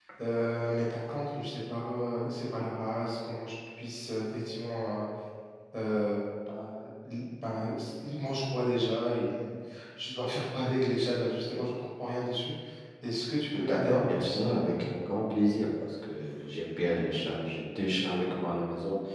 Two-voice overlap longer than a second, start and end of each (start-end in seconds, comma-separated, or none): 13.5-14.7